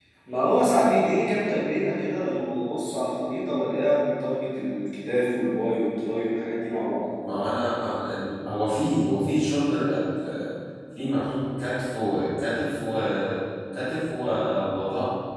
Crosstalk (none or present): none